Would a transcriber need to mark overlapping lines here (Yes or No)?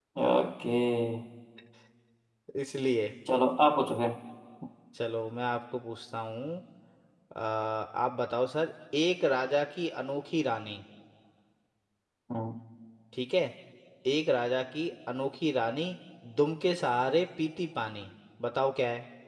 No